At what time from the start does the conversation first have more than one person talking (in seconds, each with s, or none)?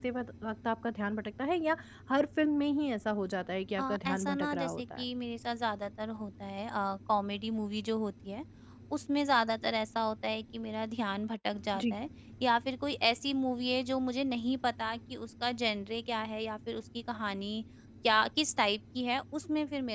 3.8 s